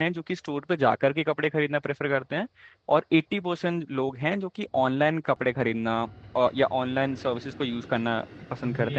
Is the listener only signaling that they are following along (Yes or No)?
No